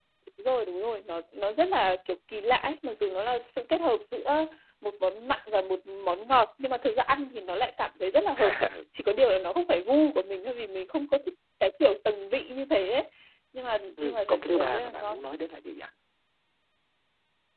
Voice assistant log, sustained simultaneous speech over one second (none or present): present